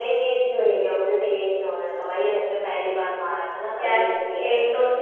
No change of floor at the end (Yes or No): No